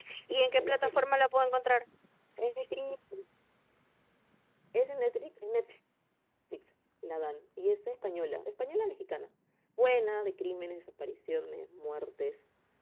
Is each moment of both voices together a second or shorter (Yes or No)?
Yes